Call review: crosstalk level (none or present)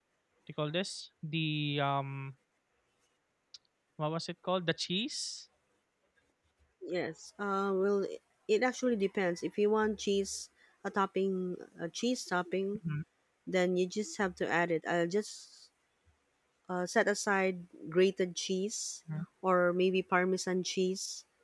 none